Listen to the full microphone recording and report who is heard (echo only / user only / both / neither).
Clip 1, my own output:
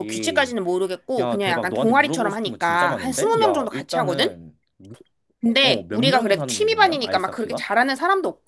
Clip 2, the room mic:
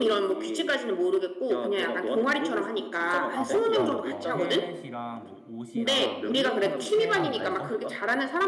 both